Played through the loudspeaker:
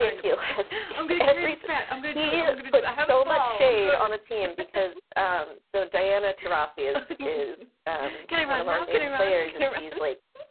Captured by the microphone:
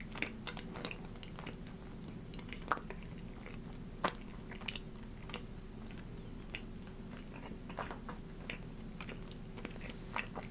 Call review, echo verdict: none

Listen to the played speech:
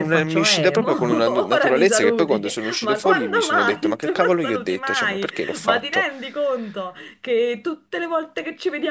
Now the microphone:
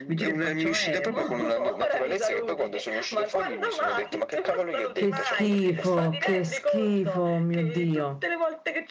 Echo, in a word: present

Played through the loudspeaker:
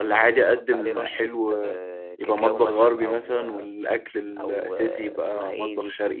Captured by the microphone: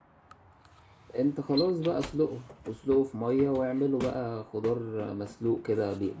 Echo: none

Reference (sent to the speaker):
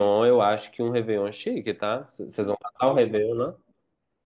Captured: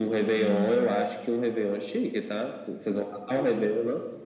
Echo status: present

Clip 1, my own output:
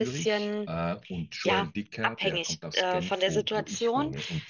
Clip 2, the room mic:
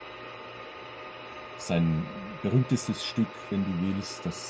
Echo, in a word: none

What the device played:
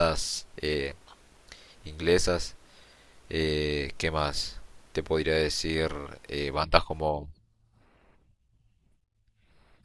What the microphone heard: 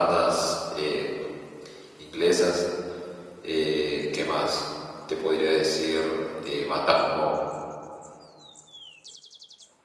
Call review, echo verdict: present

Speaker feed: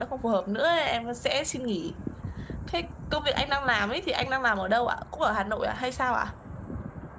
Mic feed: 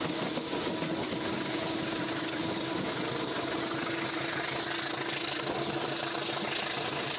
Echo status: none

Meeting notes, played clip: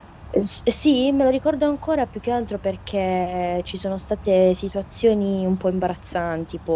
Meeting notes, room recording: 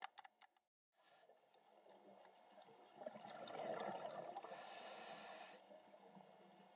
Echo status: none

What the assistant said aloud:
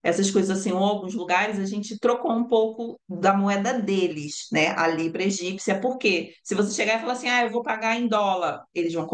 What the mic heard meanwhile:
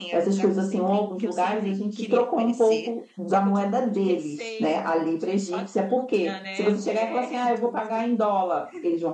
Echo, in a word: present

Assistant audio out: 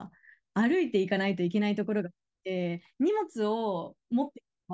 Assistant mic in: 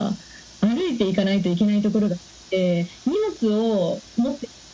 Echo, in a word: present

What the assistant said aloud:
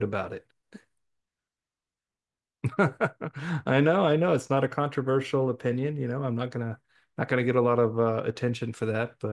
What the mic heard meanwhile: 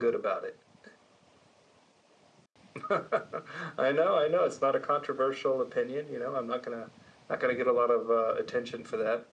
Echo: present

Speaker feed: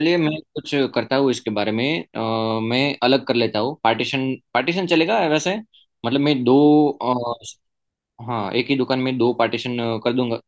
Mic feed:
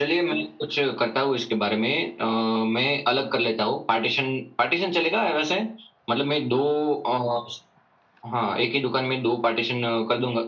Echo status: present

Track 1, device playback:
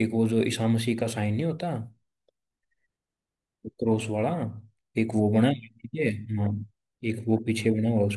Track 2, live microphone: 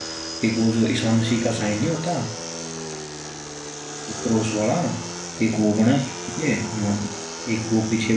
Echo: present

